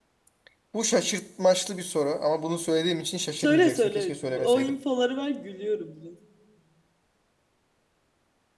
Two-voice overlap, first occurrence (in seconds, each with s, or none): 3.4 s